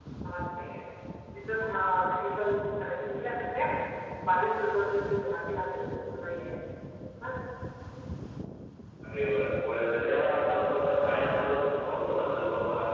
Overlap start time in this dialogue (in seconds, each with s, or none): none